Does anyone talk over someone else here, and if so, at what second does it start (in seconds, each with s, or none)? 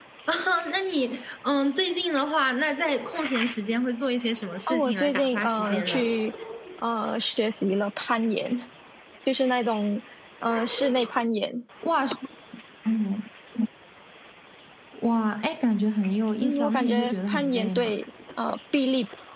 4.7 s